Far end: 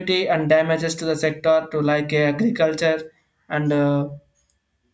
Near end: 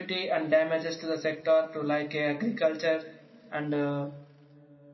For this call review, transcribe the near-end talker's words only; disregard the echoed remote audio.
none

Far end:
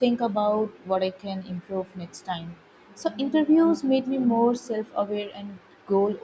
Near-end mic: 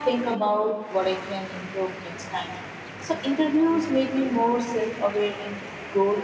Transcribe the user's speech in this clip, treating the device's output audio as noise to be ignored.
none

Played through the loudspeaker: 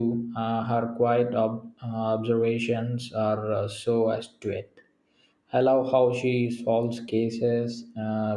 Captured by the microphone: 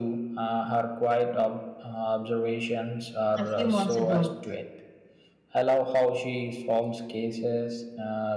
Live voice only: a few months ago.

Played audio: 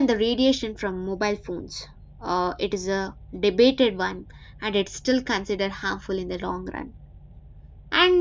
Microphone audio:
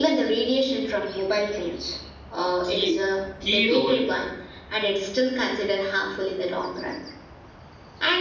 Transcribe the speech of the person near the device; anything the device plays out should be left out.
key key role

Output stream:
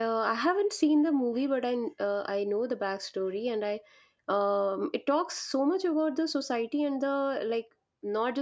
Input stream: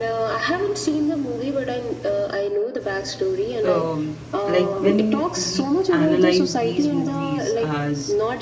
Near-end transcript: um like when we analyze these movies as

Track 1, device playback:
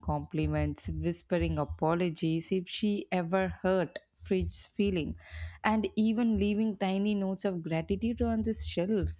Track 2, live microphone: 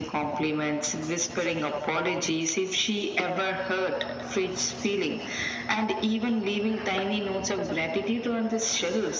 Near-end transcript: none

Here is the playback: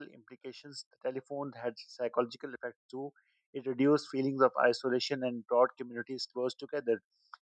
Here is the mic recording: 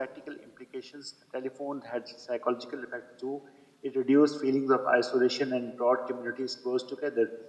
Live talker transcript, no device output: none

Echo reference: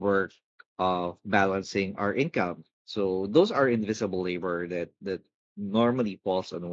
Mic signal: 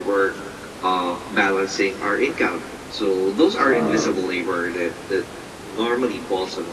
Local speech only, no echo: Uh,

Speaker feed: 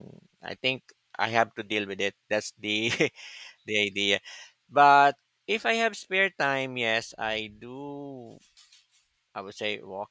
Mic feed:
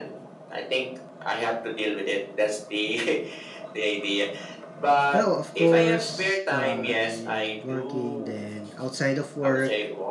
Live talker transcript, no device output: Well, of course, I am working, then outside of work,

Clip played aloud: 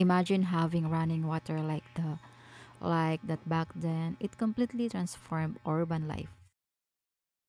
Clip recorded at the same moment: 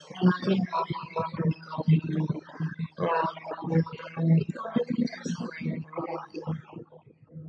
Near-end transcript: none

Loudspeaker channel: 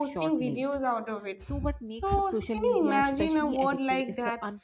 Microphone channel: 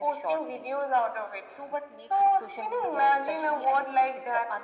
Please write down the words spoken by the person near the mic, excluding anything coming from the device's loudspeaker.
none

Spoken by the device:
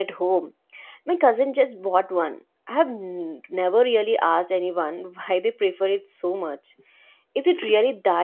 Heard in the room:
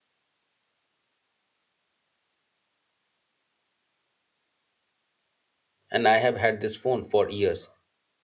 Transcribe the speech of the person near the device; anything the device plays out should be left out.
And I have had this phone for years

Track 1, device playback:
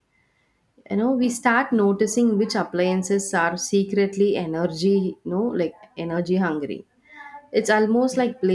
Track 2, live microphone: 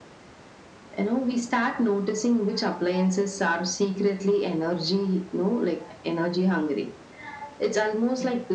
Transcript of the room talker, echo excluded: none

